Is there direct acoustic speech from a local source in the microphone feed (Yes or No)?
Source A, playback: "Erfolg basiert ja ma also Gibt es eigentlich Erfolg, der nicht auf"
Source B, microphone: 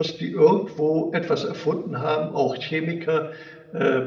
Yes